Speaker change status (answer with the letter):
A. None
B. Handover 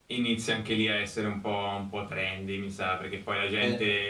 A